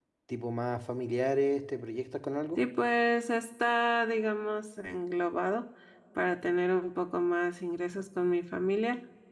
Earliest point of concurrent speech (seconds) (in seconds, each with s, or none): none